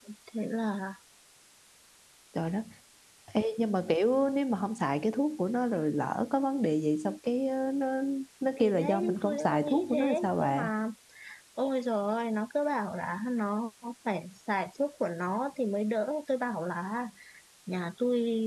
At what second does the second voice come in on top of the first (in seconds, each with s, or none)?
8.6 s